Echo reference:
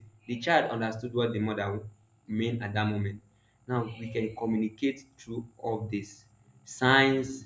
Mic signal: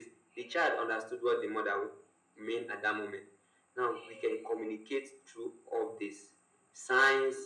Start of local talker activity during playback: none

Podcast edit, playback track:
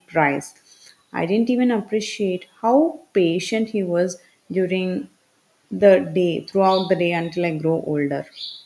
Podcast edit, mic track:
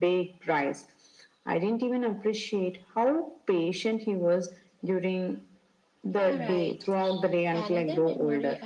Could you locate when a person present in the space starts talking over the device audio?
6 s

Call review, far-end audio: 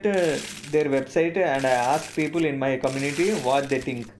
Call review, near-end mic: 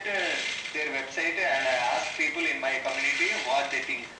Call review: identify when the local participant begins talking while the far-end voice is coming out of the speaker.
none

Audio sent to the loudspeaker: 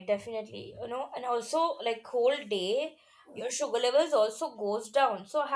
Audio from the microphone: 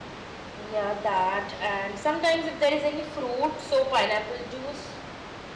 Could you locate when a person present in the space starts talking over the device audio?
1 s

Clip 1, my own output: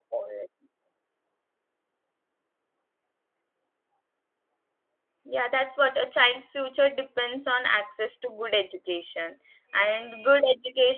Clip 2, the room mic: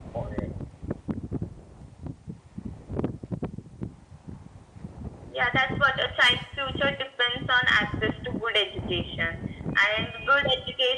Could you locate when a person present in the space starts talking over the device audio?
none

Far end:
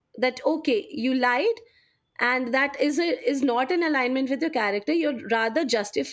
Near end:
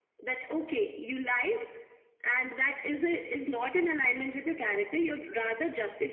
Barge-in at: none

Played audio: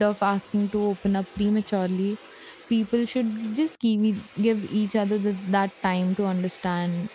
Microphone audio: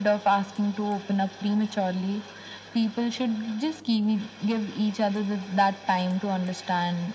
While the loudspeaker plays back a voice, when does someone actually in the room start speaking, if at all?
none

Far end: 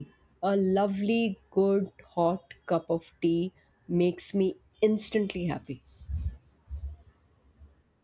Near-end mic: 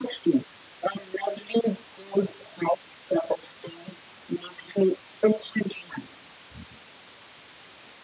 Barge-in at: none

